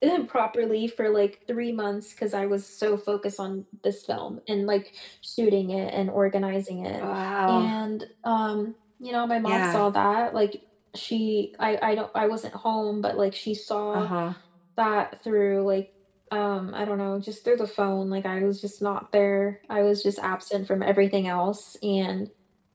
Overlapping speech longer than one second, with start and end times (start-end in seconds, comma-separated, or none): none